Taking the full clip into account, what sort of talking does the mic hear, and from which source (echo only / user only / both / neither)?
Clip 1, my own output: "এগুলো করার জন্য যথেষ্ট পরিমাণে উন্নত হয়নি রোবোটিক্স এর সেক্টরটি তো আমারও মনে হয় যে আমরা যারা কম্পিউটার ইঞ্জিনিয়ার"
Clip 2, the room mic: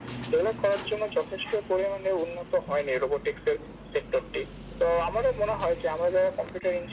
echo only